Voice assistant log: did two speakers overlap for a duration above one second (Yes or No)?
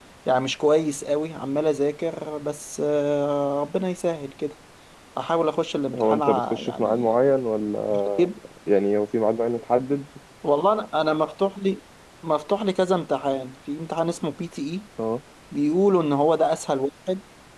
Yes